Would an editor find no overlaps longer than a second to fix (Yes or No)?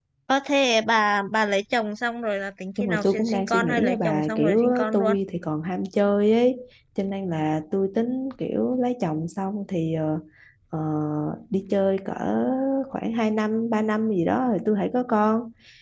No